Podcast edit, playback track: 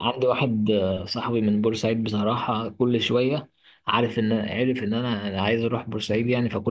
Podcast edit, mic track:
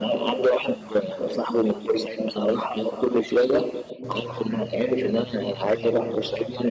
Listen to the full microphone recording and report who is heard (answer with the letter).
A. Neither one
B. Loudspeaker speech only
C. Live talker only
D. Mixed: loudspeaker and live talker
B